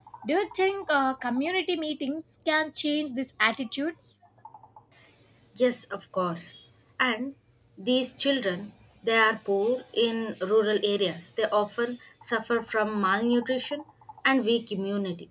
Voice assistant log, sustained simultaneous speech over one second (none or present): none